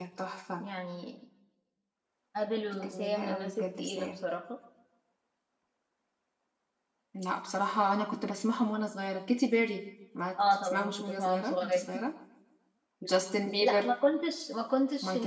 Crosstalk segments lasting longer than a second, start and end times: 2.8-4.2, 10.6-11.8

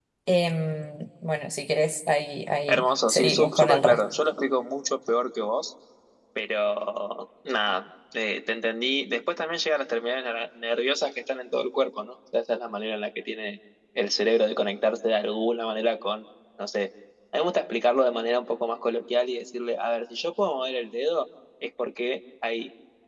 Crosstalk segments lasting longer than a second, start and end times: 2.7-4.0

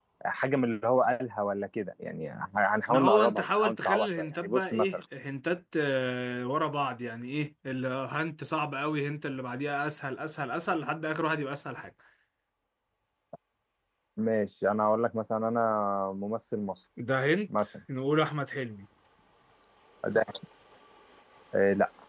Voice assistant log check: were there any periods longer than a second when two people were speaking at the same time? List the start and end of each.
2.9-5.0

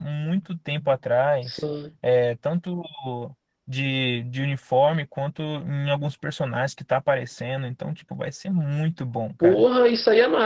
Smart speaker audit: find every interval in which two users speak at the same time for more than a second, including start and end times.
none

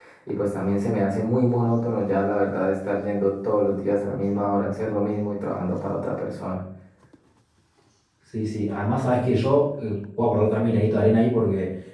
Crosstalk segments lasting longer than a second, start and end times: none

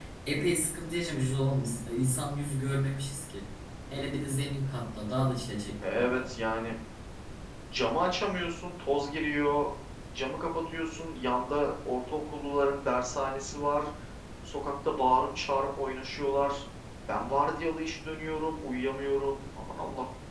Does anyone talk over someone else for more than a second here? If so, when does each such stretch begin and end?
none

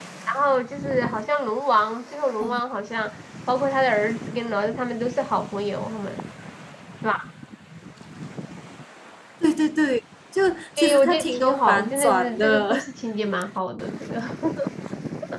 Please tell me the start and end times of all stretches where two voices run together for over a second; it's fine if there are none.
10.8-12.9

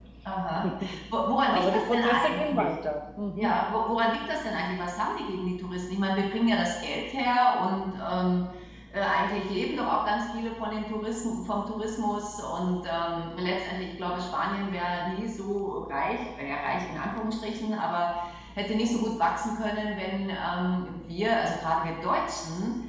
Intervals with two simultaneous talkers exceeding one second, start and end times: 1.5-2.7

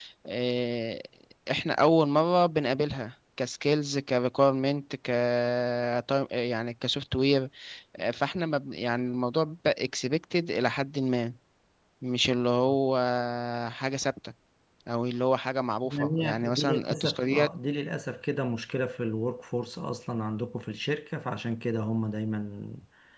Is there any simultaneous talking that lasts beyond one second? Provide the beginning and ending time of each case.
15.9-17.5

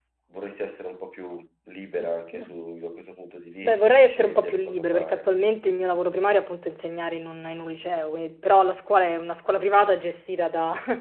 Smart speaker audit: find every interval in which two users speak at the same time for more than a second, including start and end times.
3.6-5.2

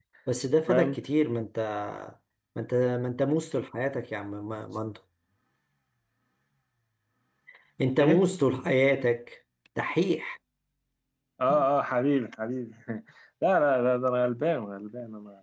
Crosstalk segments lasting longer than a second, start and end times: none

